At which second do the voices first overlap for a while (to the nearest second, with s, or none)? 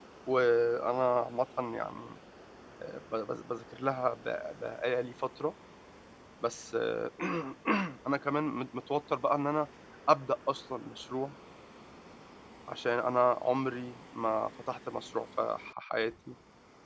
none